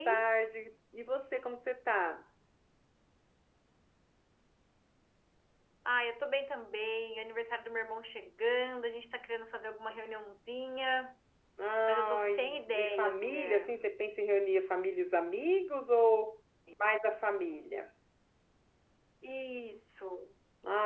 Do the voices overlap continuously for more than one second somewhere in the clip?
Yes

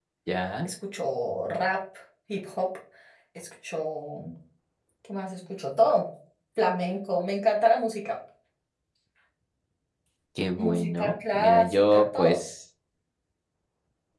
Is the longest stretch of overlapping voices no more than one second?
No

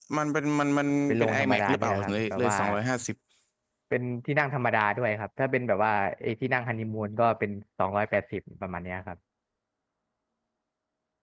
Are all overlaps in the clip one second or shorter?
No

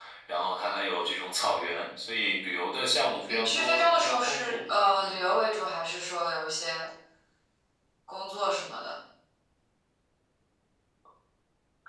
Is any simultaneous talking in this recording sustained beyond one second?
Yes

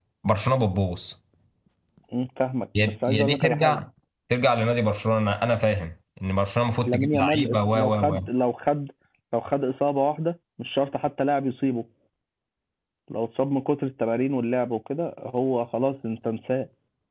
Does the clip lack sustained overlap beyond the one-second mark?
No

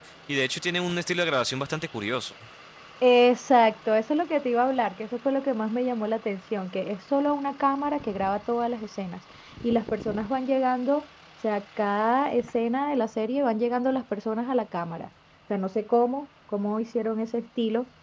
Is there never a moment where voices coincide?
Yes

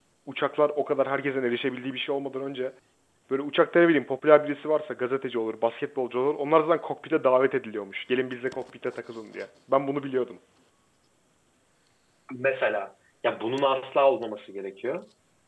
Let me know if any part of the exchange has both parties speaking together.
No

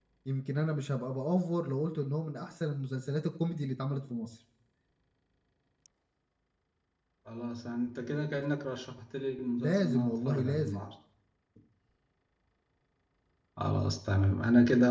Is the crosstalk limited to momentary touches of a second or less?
No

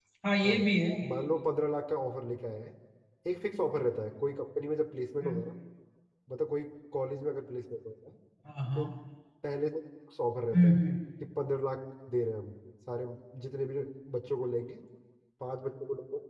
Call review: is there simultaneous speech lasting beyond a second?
No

